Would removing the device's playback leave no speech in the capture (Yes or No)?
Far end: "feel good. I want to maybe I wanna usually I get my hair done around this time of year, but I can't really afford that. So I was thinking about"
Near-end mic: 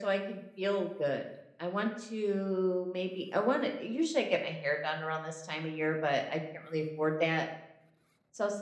Yes